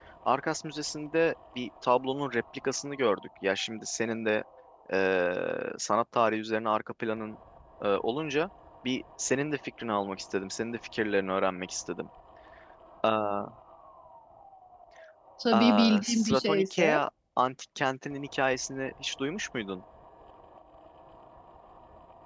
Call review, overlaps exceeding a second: present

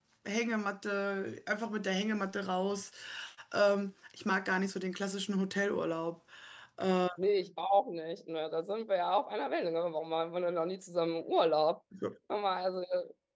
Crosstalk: none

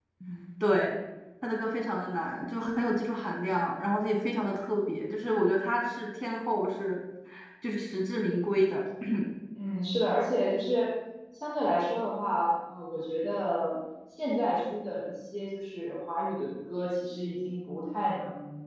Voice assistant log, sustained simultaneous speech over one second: none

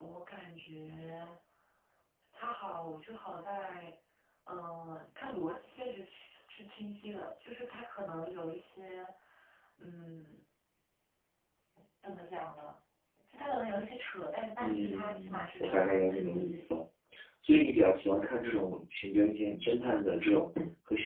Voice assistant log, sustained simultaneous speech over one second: present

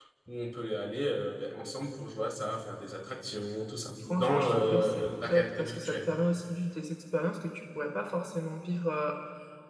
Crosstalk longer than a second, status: present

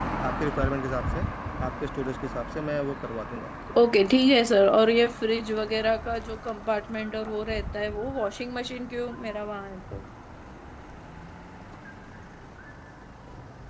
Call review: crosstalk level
none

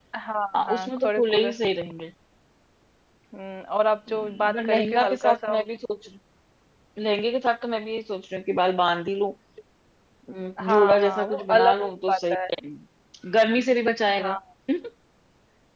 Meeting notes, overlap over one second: present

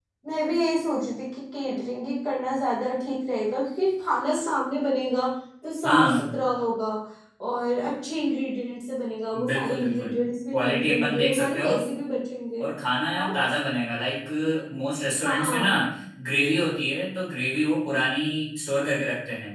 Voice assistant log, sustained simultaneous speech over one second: present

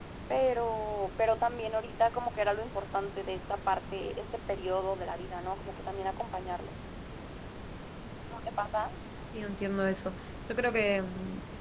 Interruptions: none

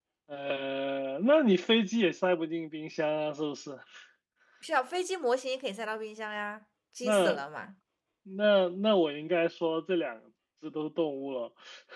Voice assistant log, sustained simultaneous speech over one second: none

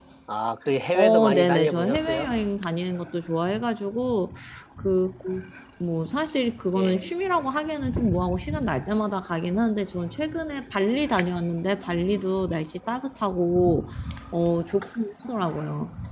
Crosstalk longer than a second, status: present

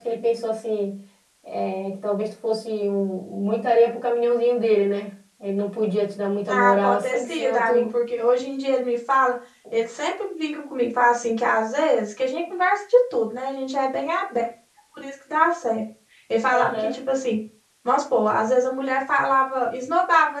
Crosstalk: present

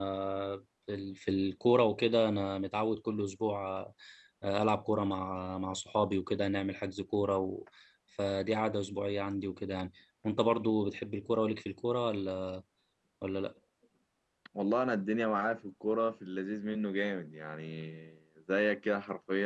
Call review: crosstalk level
none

